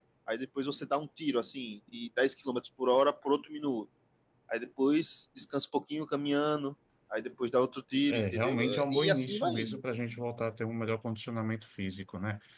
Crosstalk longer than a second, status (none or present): present